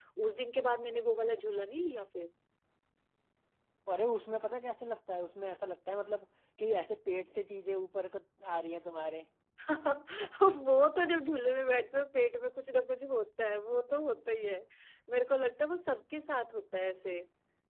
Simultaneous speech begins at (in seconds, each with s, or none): none